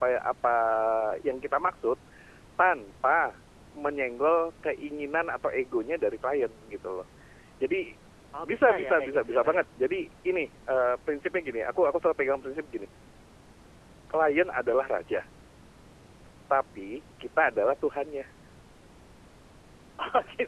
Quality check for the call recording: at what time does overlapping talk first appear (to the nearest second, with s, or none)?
8 s